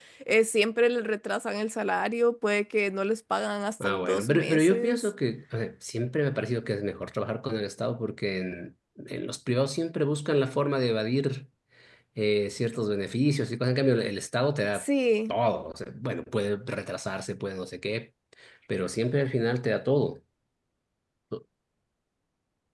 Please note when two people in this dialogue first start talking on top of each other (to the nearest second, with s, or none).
4 s